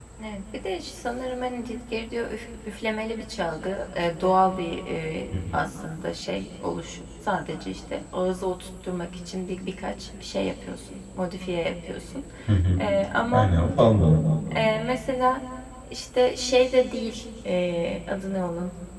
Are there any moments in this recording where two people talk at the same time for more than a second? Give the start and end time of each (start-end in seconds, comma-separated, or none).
none